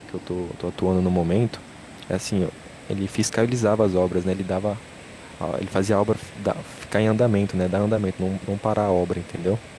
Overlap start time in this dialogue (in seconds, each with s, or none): none